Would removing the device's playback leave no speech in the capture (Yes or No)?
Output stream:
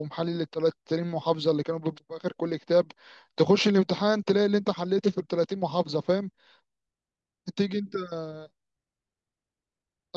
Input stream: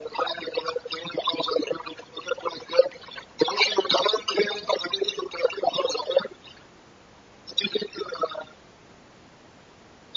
Yes